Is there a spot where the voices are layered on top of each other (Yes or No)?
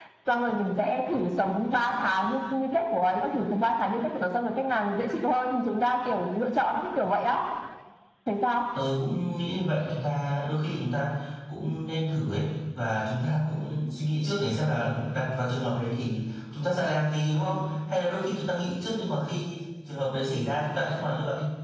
No